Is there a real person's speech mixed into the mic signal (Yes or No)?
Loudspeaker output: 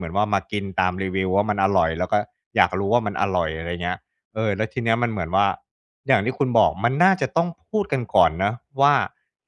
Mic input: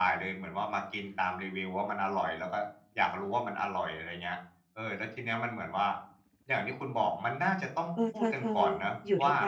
Yes